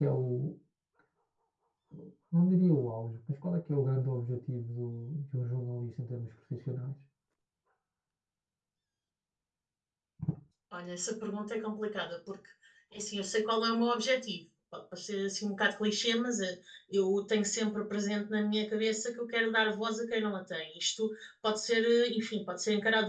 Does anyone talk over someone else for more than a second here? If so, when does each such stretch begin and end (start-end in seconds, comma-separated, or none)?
none